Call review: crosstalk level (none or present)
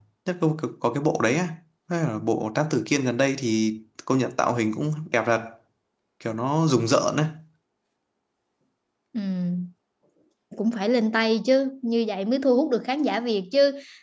none